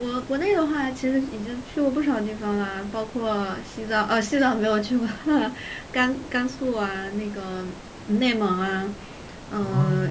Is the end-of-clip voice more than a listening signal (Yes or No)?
No